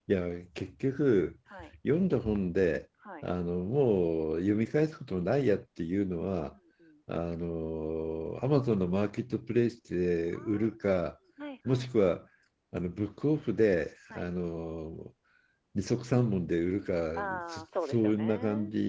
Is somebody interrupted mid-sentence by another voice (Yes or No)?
Yes